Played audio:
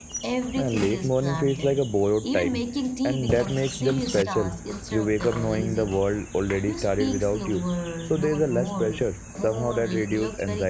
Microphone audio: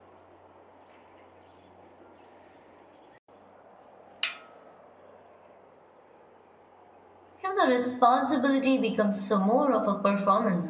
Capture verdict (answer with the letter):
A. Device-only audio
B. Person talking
B